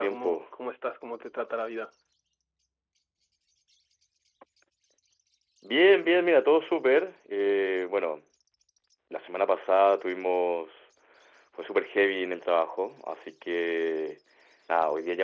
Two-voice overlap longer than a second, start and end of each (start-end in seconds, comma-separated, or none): none